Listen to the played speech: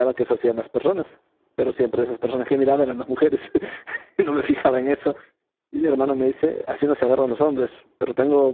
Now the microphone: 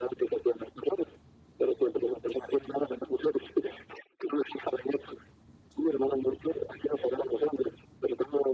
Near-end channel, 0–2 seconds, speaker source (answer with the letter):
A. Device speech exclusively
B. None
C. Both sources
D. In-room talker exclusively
A